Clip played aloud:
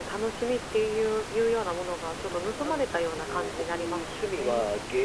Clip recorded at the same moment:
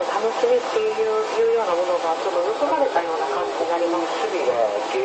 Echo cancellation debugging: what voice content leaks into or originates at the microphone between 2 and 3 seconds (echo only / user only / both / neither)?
echo only